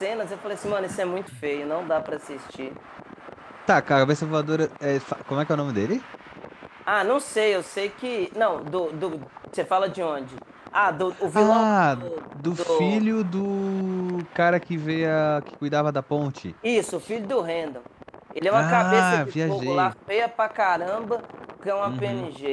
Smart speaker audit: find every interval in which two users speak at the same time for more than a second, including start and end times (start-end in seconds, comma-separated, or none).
18.5-19.9